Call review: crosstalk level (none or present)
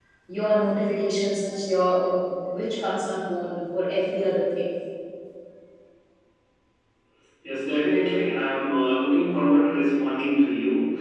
none